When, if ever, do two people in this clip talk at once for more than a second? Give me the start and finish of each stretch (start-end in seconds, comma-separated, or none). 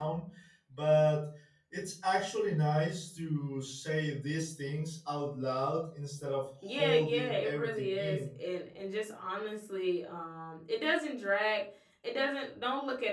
6.7-8.3